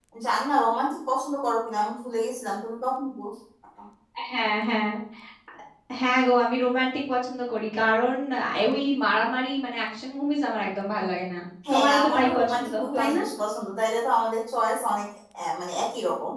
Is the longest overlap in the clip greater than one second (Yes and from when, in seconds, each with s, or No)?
Yes, from 11.6 s